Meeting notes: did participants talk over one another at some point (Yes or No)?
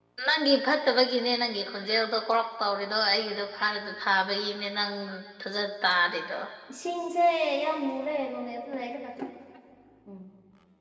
No